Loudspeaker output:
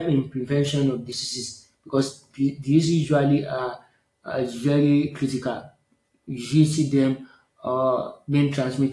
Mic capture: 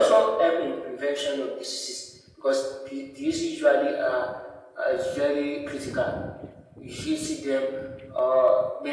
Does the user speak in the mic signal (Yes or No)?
No